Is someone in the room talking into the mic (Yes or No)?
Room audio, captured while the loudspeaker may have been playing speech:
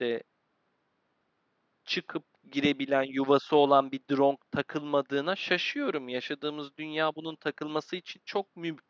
Yes